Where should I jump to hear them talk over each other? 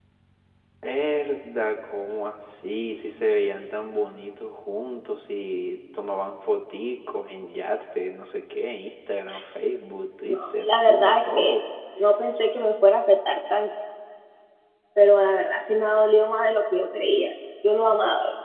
10 s

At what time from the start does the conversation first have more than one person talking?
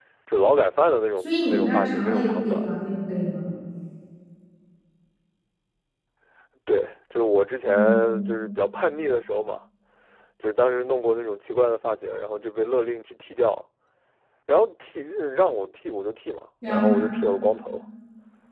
1 s

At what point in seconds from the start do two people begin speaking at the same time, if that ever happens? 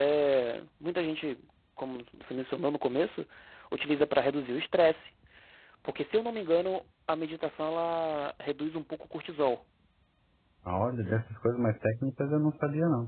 none

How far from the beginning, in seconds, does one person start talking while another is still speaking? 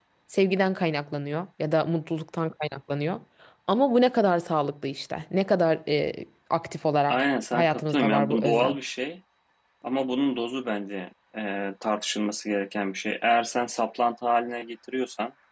7 s

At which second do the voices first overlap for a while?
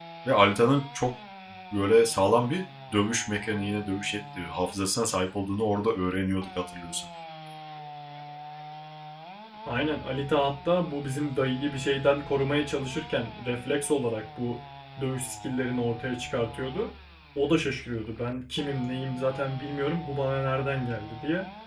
none

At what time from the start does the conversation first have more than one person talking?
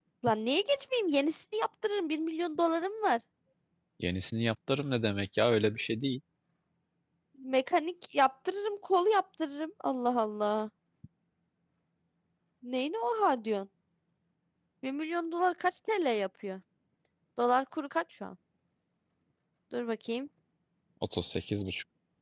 none

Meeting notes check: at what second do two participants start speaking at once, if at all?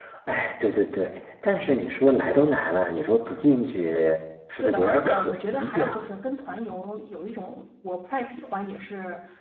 5 s

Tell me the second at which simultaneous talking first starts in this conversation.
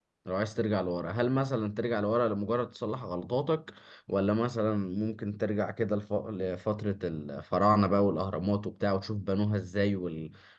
none

